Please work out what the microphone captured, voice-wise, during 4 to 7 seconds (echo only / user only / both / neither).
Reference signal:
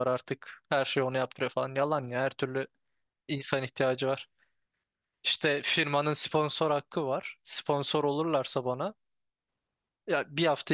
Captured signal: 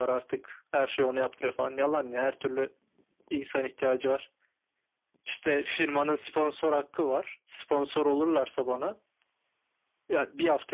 echo only